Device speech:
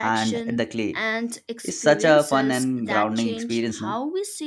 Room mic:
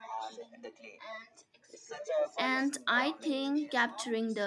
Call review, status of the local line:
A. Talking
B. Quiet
A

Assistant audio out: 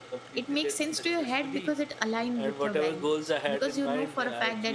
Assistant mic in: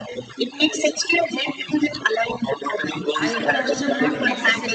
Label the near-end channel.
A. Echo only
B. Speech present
B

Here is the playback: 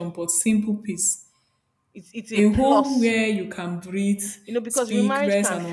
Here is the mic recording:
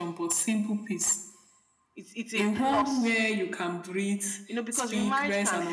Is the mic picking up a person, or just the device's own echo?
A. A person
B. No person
B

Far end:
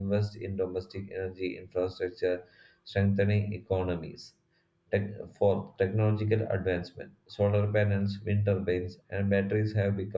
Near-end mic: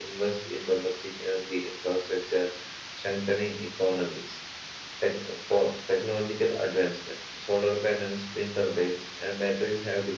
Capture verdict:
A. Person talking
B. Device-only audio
B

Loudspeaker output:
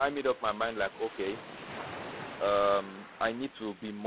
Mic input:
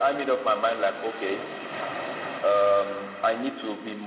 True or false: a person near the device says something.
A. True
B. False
B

